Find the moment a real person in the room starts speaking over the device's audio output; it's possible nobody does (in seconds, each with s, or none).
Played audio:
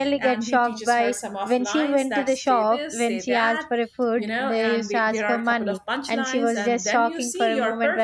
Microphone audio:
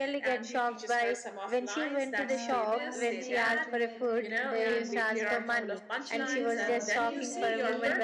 2.2 s